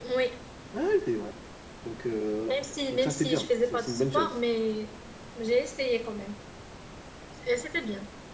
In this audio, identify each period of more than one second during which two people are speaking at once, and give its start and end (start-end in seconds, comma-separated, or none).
2.9-4.3